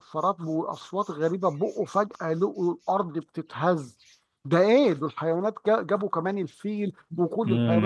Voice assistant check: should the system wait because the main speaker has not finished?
No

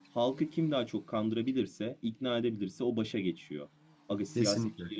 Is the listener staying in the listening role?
Yes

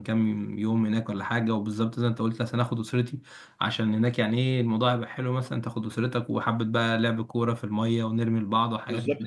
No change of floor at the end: No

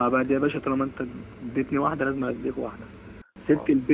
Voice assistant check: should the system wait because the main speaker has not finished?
Yes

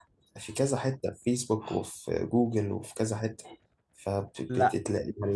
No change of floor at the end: Yes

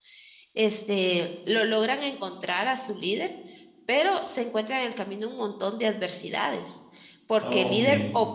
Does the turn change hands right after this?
No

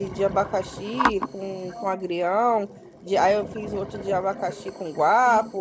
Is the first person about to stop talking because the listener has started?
No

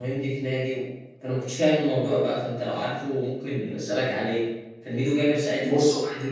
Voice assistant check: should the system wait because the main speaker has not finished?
Yes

